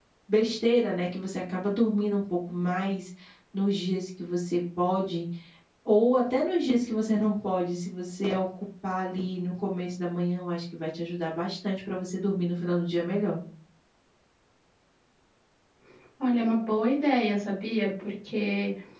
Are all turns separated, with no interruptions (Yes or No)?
Yes